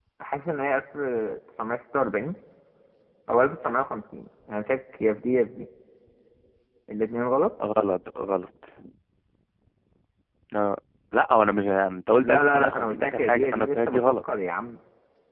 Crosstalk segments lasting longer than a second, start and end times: 12.2-14.2

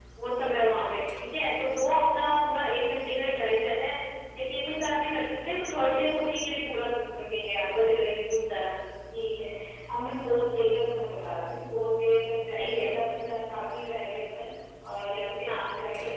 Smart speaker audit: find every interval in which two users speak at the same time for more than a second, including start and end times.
none

